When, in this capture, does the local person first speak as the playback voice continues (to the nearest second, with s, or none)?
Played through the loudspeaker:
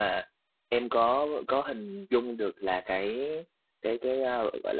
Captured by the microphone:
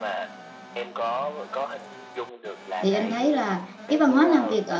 3 s